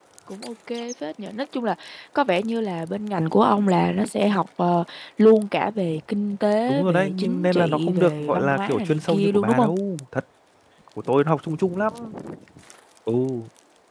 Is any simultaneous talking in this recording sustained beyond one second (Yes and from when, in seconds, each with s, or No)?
Yes, from 6.7 s